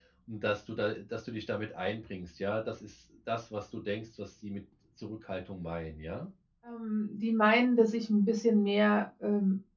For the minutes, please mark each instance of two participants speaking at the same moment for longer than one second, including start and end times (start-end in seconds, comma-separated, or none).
none